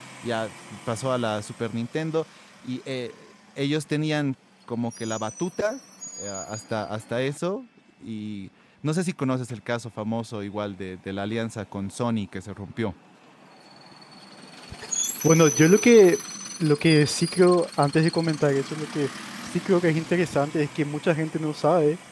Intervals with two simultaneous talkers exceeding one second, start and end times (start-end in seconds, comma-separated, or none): none